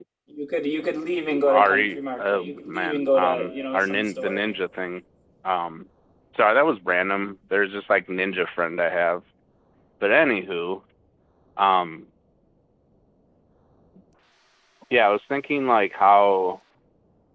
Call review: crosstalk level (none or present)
present